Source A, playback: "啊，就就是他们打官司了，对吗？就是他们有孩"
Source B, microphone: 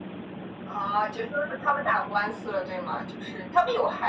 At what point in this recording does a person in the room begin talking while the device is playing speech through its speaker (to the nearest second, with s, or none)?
none